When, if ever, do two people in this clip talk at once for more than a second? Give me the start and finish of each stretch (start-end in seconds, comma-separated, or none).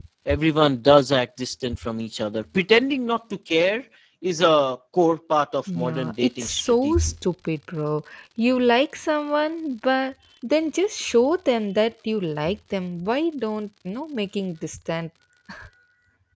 5.8-7.1